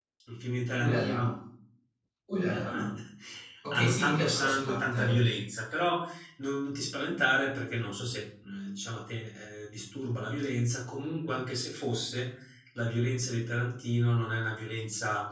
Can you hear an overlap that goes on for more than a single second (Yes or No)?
Yes